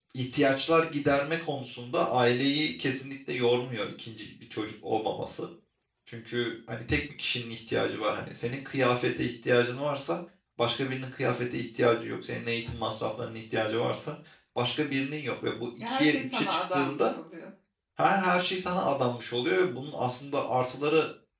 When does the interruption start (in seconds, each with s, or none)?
15.7 s